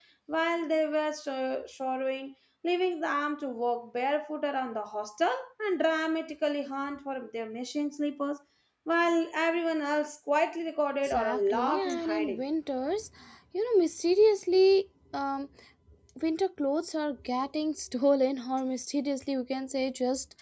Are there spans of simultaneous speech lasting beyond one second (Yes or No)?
Yes